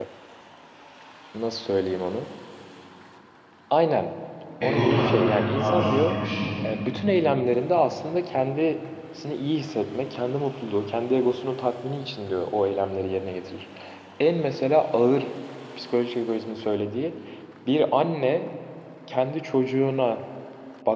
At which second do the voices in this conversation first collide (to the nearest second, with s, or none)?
5 s